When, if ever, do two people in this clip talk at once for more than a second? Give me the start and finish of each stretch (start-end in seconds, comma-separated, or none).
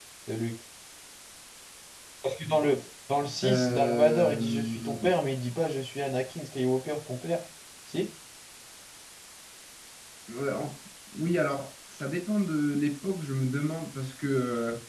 3.4-4.9